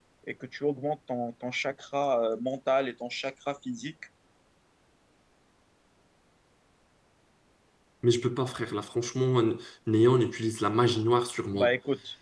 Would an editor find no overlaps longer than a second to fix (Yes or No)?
Yes